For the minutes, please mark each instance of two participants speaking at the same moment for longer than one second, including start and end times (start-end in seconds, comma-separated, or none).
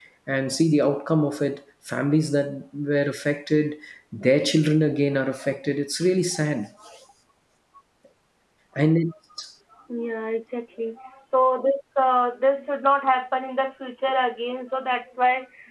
none